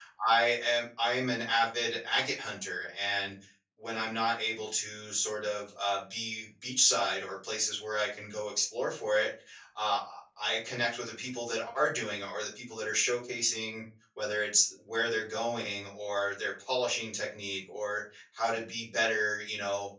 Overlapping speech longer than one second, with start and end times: none

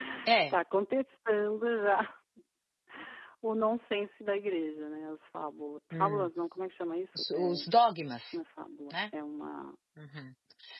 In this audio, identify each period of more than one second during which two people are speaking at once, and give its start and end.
none

